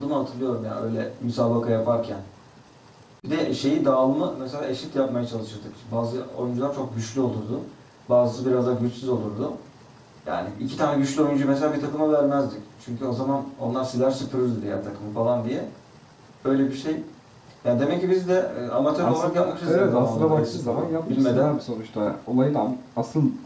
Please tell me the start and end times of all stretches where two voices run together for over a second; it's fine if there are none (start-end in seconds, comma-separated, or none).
19.0-21.5